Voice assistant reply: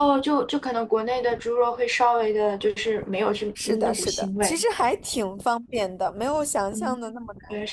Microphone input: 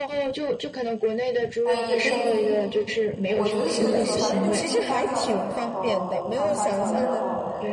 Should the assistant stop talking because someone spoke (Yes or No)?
Yes